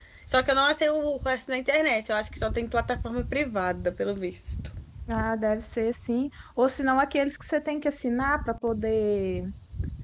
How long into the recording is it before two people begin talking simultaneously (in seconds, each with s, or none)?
none